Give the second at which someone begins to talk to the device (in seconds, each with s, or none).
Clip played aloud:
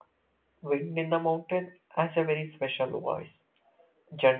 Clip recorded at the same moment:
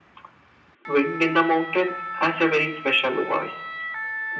none